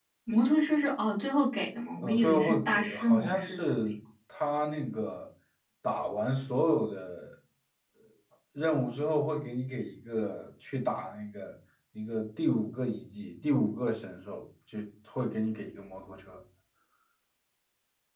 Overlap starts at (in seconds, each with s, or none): 2.0 s